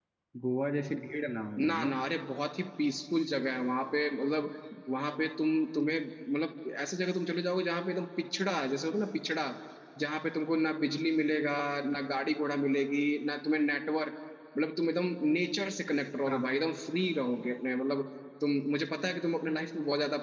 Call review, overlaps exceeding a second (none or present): none